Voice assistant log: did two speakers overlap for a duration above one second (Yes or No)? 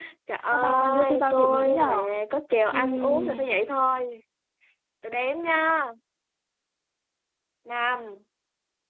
Yes